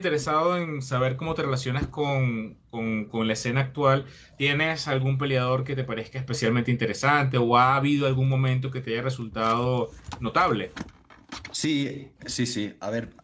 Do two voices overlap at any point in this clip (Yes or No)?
No